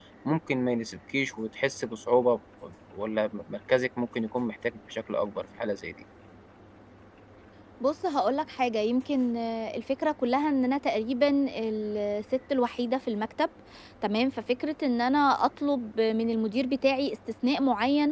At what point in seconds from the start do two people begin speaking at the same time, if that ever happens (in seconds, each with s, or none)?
none